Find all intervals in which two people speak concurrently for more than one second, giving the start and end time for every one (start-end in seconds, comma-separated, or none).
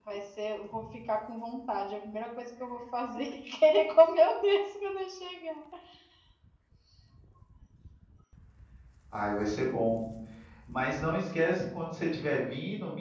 none